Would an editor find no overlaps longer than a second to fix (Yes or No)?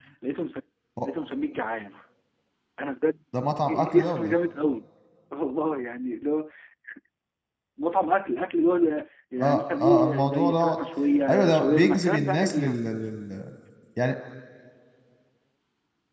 No